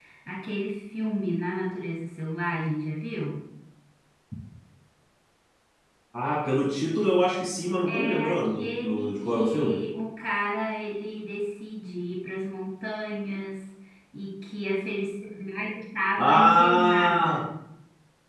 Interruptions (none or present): present